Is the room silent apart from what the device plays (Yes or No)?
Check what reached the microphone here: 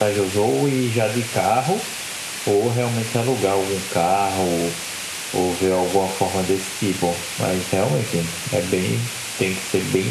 Yes